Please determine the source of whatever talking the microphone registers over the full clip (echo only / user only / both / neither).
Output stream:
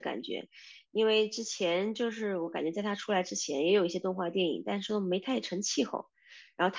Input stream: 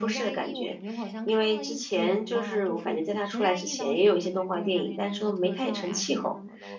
both